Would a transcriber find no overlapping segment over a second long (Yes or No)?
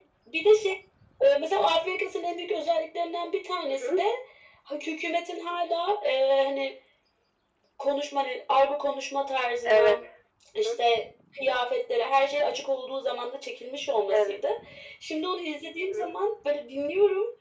Yes